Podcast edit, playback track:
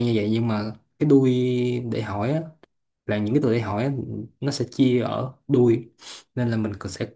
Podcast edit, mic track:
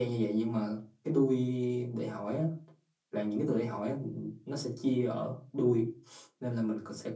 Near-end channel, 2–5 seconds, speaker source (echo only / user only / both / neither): echo only